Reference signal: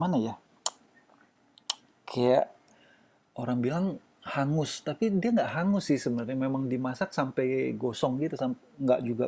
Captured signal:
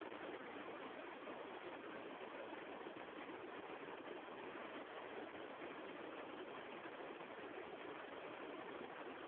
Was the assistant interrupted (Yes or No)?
No